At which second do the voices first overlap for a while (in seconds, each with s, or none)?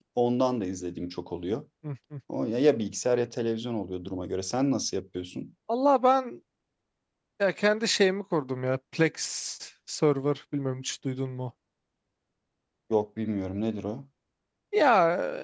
none